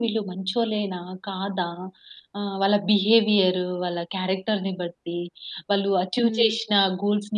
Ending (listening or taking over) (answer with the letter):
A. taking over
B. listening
B